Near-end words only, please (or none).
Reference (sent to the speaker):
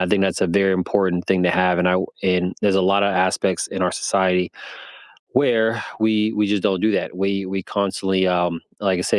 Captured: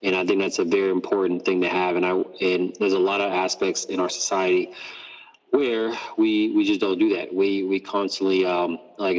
none